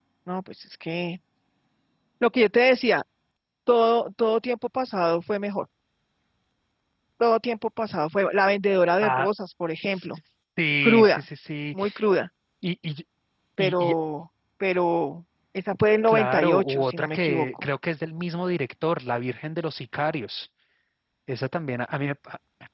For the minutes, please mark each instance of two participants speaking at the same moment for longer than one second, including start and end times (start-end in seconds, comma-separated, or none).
16.1-17.6